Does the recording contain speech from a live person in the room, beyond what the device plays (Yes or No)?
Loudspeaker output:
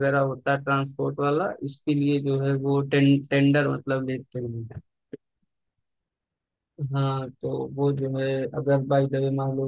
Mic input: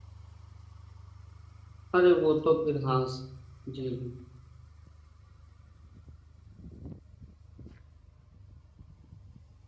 Yes